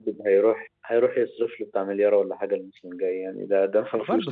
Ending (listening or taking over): taking over